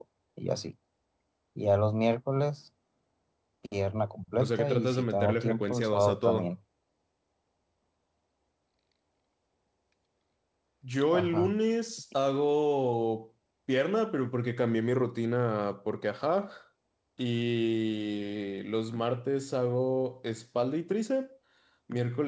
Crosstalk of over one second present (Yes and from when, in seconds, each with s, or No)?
Yes, from 4.4 s